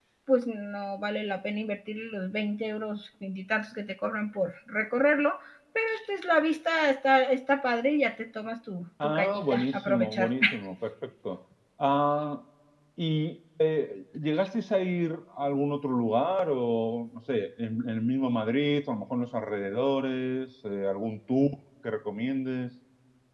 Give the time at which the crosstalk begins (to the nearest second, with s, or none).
9 s